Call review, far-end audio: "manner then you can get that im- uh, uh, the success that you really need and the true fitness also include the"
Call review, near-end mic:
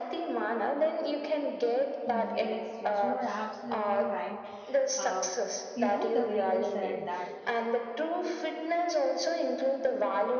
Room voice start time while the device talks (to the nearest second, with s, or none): 2 s